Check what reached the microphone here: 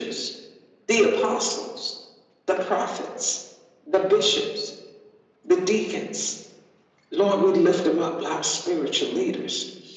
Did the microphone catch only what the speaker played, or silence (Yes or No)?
Yes